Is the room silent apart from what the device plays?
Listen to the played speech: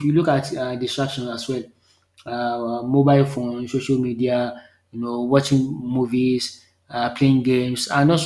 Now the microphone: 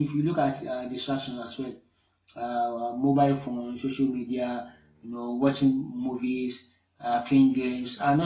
Yes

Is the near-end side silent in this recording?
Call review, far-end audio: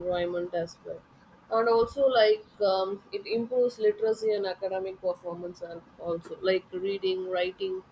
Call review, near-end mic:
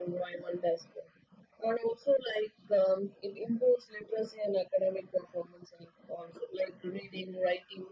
Yes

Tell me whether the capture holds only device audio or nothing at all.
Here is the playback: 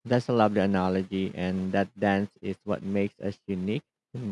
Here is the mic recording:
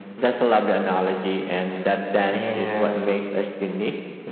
No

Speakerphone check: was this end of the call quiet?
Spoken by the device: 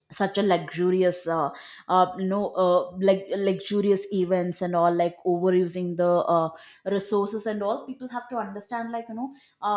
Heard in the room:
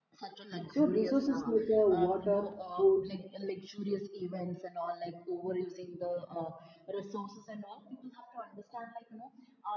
No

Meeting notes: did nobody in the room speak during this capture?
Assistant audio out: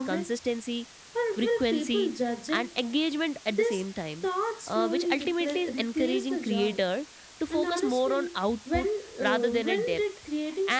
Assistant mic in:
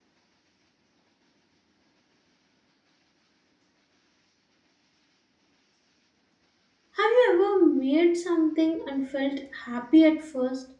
No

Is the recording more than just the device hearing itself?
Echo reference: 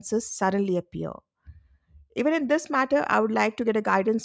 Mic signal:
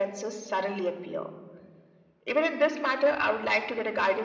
No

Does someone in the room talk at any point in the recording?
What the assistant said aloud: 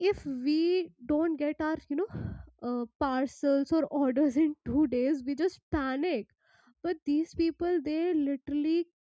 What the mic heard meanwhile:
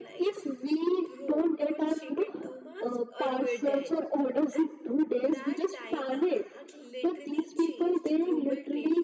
Yes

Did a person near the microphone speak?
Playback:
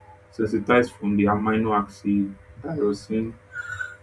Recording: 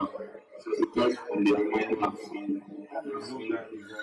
Yes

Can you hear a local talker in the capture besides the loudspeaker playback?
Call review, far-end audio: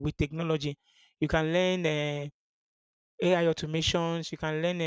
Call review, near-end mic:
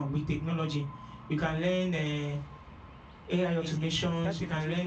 Yes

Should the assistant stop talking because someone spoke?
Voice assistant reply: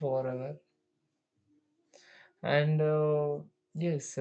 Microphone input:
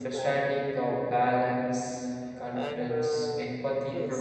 Yes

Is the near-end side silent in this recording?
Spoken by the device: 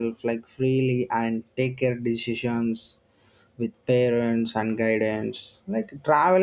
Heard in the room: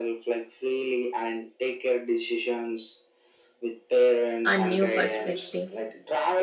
No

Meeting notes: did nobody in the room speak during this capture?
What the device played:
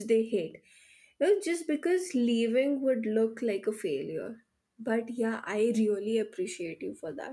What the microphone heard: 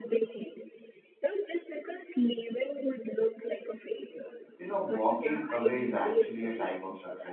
No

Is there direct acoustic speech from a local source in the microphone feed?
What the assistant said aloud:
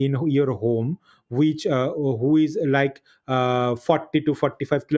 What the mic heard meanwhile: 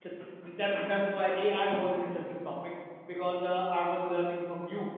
Yes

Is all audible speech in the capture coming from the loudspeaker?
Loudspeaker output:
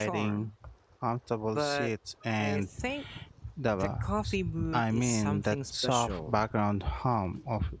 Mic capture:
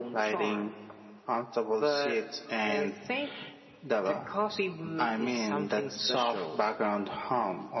Yes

